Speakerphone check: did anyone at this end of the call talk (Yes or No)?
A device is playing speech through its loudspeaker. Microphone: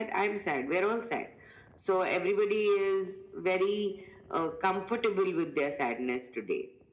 No